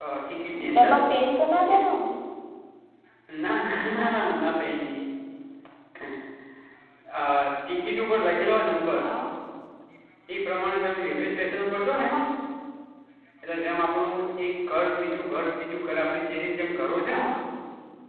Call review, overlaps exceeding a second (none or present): none